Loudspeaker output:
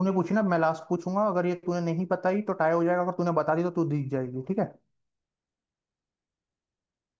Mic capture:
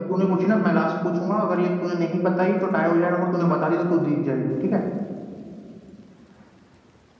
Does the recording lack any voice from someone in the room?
Yes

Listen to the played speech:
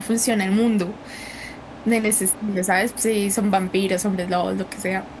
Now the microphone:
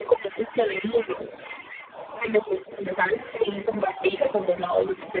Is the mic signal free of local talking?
Yes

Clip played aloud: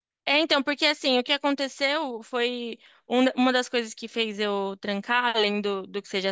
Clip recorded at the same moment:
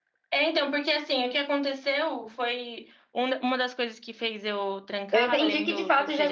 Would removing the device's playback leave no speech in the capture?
No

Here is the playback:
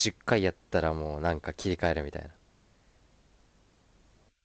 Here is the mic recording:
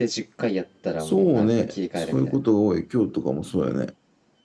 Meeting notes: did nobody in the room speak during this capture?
No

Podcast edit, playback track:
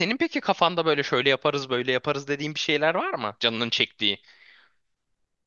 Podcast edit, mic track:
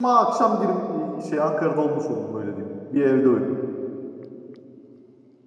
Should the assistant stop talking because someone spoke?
Yes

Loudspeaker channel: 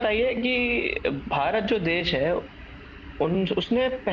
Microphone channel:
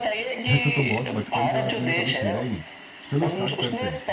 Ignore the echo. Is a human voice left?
Yes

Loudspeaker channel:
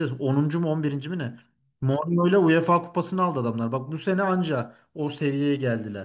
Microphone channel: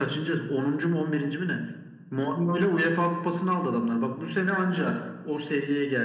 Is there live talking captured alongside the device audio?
No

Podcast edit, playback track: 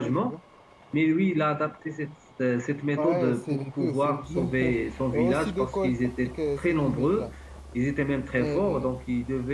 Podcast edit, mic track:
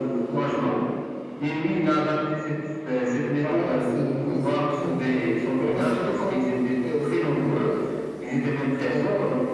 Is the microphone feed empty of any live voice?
Yes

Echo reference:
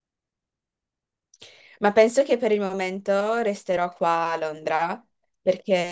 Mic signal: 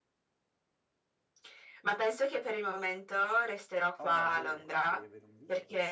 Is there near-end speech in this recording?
Yes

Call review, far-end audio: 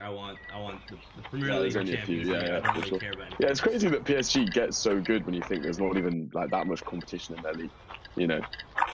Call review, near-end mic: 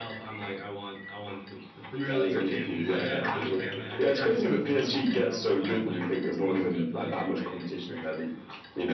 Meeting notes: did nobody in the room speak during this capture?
No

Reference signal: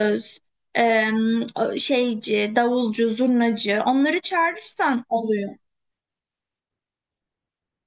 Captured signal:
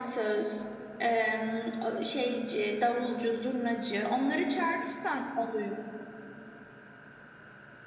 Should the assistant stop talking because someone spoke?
No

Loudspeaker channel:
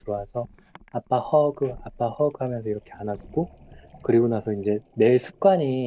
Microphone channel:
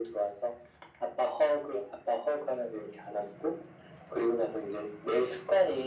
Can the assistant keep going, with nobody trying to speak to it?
Yes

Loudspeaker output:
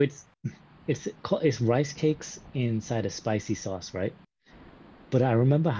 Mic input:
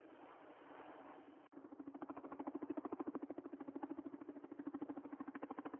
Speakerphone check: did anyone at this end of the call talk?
No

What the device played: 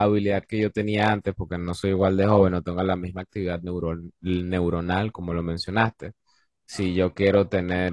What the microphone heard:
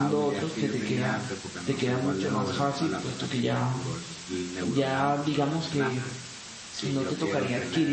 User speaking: Yes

